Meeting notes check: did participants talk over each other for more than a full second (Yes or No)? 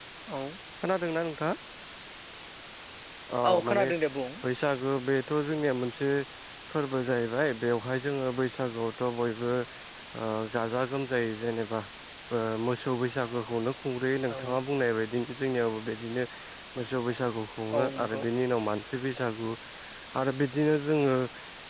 No